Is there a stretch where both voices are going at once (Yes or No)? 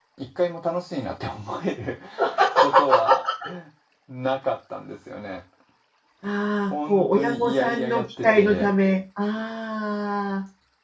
Yes